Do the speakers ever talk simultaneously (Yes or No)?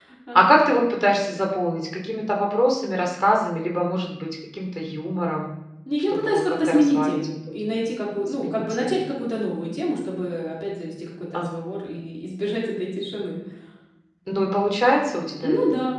Yes